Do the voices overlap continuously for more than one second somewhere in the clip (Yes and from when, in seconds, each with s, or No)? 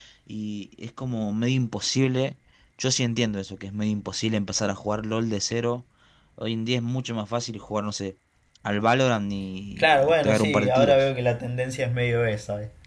Yes, from 9.8 s